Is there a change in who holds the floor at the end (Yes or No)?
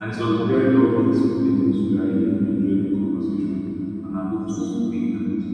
No